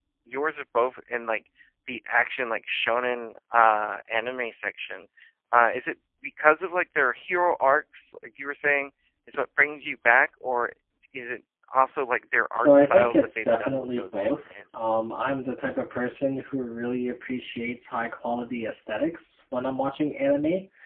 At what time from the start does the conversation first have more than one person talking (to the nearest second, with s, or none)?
13 s